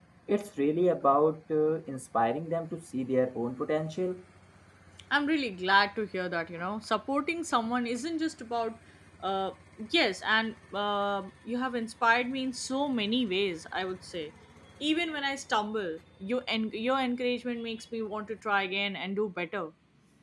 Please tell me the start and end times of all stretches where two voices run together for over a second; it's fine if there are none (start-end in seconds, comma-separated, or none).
none